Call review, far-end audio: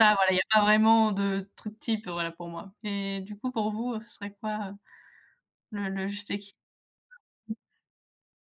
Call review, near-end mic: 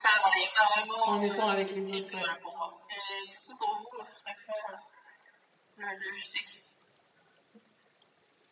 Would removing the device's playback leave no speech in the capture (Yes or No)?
No